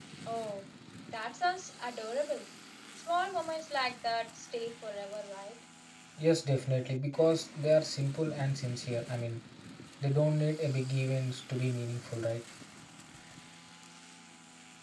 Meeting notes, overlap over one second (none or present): none